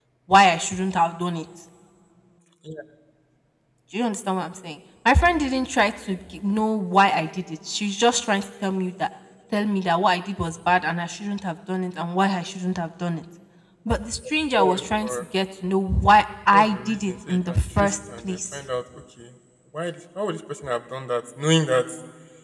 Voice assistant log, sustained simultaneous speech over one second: present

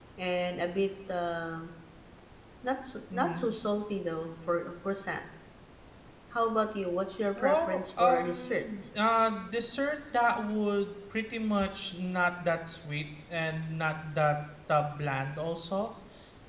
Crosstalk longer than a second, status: present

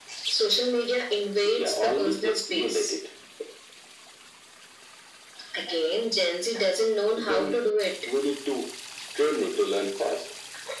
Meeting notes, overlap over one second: present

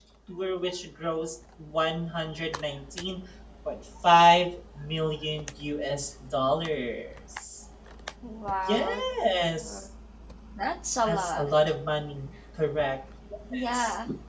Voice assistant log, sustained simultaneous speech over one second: none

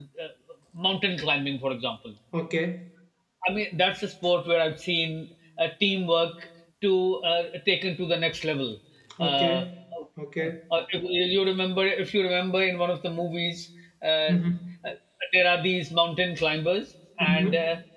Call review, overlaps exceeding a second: none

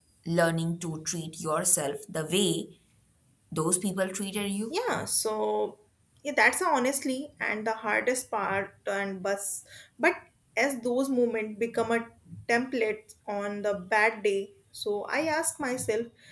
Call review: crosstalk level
none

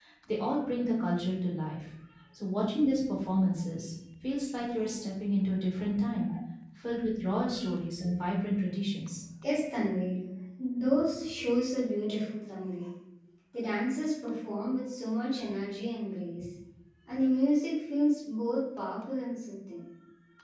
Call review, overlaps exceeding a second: none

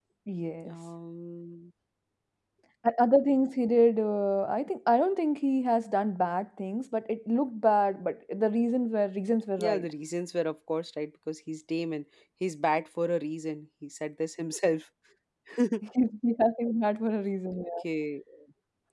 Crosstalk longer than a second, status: none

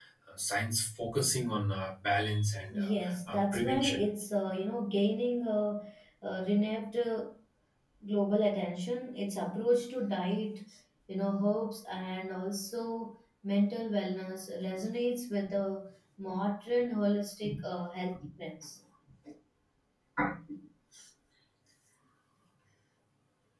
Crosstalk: present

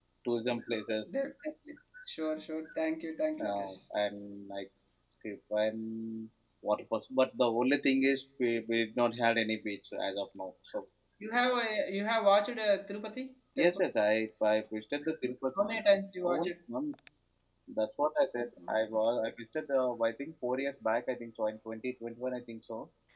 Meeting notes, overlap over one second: none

